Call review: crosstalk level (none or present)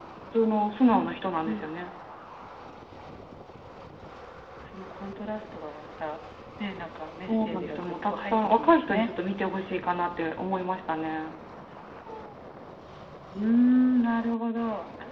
present